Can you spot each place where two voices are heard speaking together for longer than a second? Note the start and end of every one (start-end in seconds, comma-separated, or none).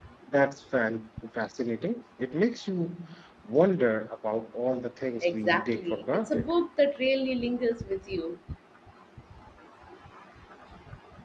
5.2-6.5